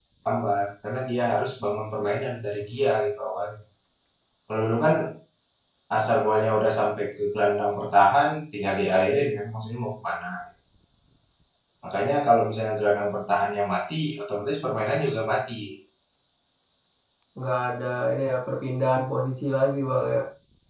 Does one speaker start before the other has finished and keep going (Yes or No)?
No